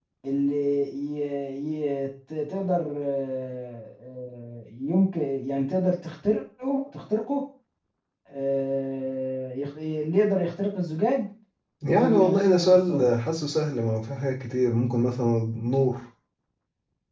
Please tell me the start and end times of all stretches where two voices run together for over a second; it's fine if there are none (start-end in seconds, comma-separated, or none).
11.9-13.1